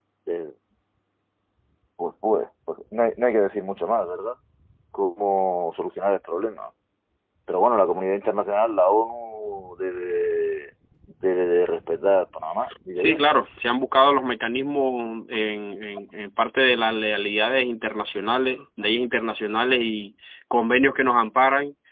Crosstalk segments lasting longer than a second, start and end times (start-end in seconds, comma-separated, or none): none